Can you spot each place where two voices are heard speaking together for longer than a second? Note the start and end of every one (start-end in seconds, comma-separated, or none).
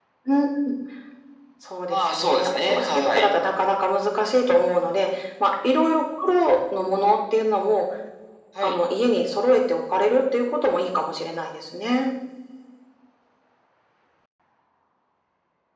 1.9-3.3